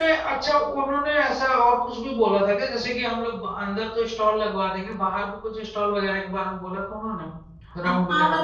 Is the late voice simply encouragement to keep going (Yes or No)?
No